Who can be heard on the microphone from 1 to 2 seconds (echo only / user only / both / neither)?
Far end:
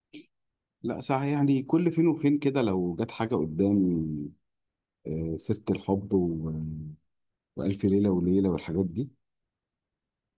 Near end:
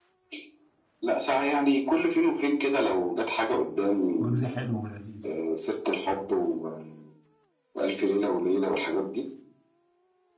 echo only